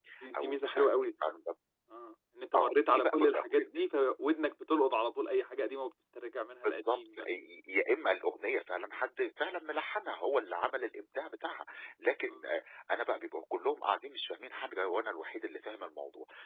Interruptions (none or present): present